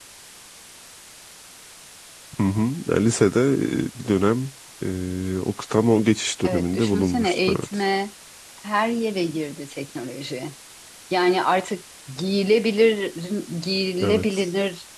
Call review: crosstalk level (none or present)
present